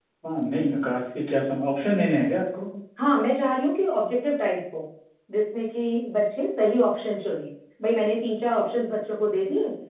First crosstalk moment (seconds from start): none

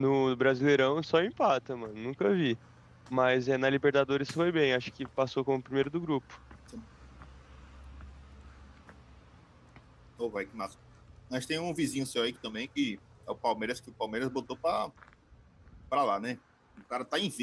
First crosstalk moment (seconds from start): none

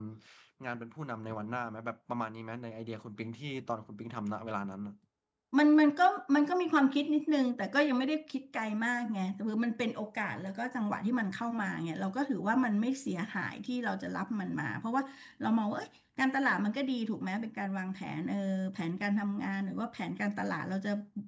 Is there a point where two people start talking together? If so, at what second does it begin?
none

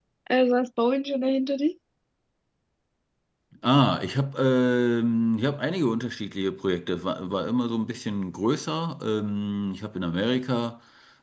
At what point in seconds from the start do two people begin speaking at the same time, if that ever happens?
none

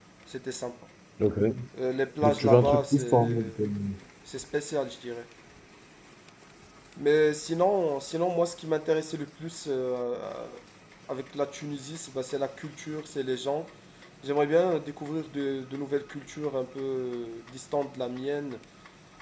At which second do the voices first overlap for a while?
2 s

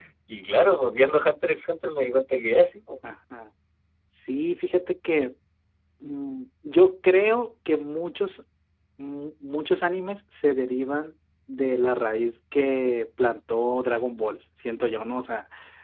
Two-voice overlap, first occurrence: none

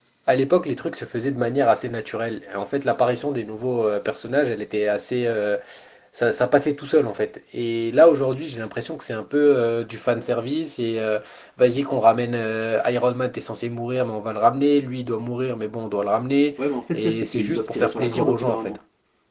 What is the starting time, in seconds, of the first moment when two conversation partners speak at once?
17 s

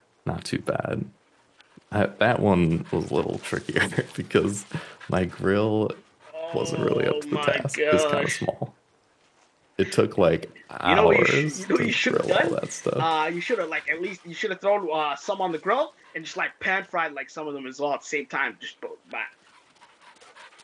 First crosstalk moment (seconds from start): 7 s

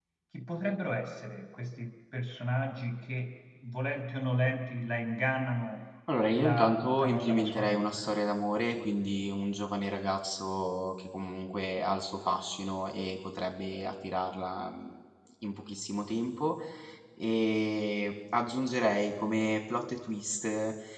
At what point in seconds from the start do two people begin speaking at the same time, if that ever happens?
6 s

